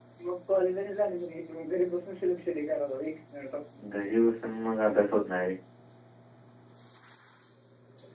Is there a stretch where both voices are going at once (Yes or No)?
No